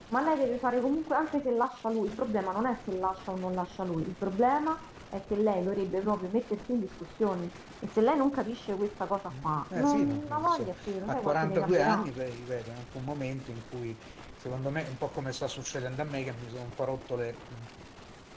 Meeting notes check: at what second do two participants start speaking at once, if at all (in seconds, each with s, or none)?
9.3 s